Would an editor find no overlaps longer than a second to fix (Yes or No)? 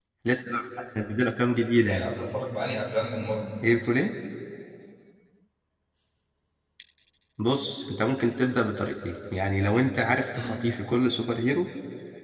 Yes